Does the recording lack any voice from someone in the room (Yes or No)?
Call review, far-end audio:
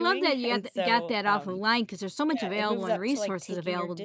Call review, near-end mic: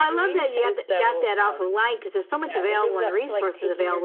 Yes